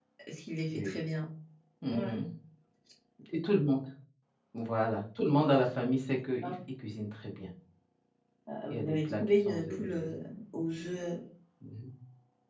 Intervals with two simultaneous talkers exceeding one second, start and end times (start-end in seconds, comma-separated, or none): 8.7-10.1